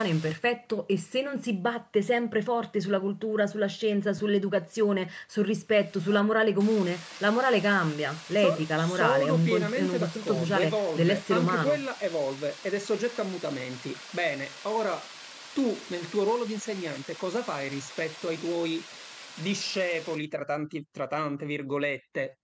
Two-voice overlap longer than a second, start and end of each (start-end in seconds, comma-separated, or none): 8.4-11.8